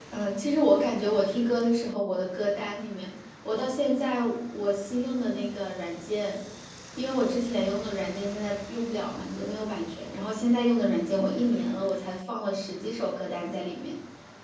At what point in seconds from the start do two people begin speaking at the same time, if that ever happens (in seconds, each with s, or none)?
none